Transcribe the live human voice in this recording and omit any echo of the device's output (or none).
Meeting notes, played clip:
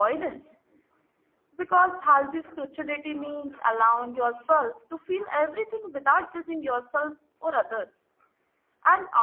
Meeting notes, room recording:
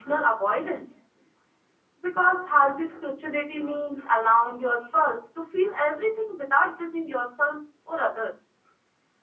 none